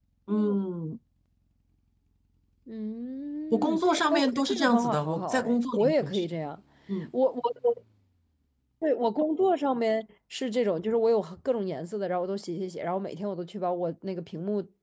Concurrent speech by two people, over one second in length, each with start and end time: 3.5-6.2

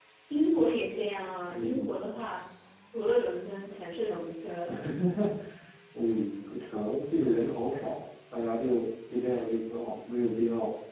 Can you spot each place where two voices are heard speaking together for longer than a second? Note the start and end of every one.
none

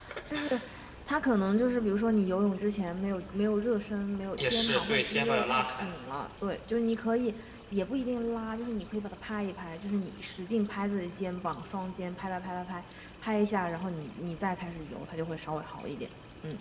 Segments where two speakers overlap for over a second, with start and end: 4.4-5.9

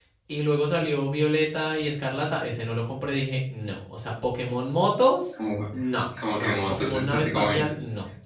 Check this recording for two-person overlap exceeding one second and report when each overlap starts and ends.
6.3-7.7

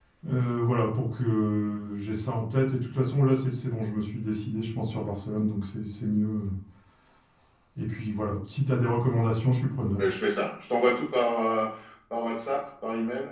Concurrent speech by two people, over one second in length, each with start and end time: none

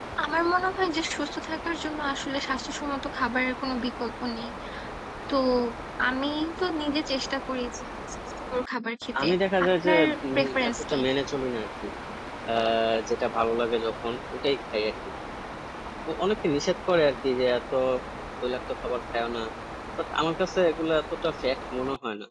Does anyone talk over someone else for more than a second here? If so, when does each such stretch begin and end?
9.7-11.0

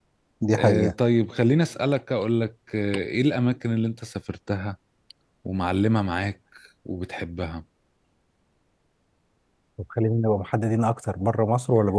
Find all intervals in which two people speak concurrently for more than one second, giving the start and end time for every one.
none

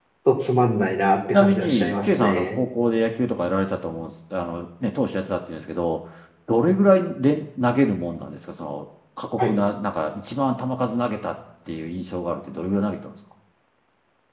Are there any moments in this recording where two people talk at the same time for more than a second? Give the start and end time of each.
1.3-2.6

